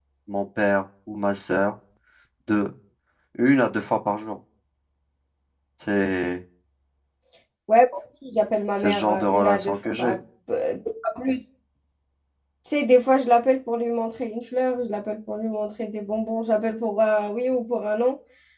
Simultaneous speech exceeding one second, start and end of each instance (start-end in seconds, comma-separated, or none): 8.8-10.2